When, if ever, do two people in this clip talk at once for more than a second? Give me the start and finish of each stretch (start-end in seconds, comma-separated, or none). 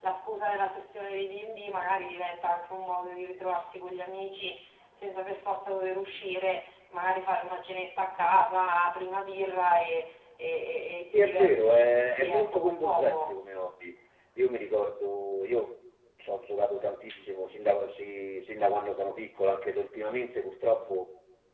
11.1-13.3